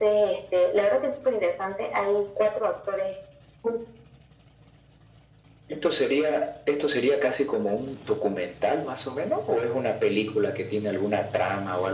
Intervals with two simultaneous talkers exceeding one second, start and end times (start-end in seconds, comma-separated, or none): none